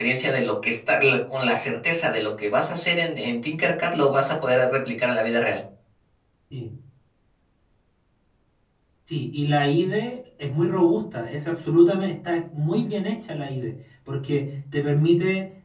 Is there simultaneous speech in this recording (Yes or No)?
No